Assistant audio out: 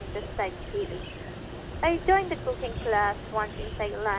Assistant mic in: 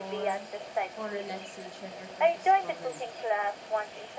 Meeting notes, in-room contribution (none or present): present